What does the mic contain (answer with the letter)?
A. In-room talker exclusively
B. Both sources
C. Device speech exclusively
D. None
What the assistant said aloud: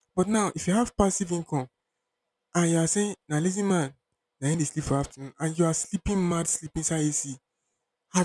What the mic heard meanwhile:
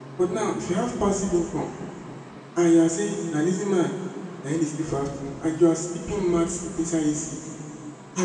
C